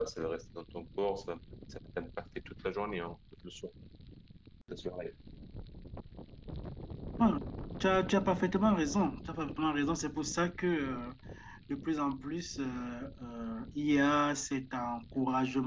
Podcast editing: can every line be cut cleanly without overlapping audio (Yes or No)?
Yes